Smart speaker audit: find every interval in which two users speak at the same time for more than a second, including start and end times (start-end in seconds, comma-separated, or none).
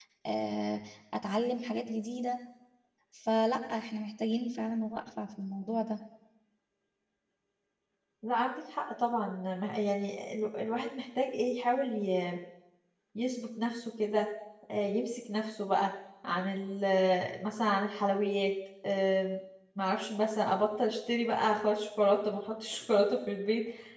none